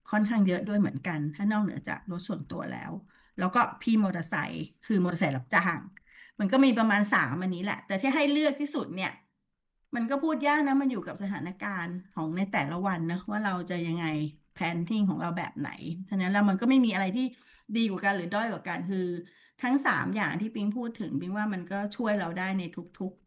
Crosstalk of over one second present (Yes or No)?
No